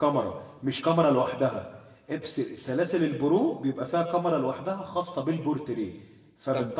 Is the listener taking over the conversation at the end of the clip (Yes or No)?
Yes